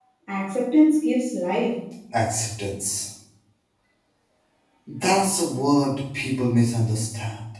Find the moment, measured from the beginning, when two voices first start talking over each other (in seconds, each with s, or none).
none